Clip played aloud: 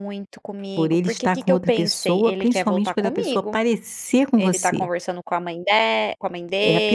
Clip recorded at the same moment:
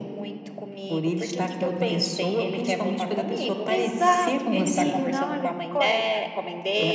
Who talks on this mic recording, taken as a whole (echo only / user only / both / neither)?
both